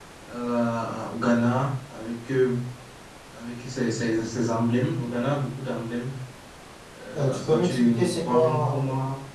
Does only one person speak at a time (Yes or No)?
No